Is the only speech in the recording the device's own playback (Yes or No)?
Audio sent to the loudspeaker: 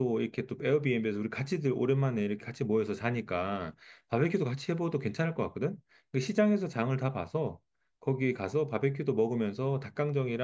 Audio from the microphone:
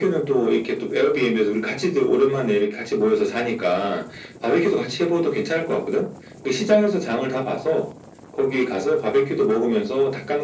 Yes